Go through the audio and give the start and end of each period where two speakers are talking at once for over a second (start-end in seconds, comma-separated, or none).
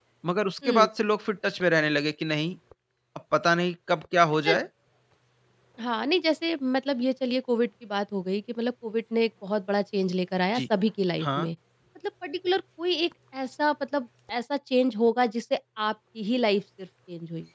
none